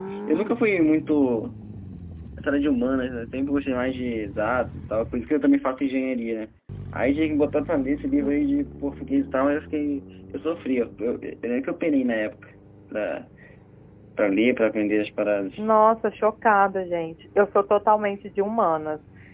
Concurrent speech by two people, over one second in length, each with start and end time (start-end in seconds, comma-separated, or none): none